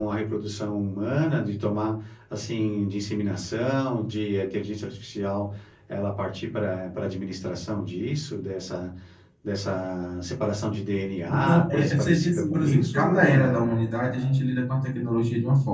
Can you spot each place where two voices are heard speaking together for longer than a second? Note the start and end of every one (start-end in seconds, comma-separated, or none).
11.3-13.7